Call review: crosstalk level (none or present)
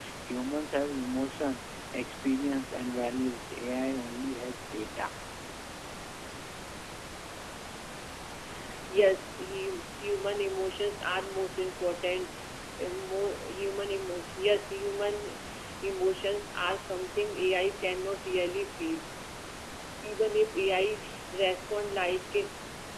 none